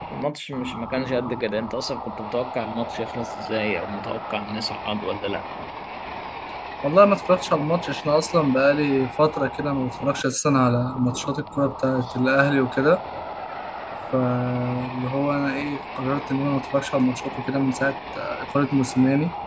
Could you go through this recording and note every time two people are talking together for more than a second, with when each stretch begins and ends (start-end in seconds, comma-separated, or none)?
none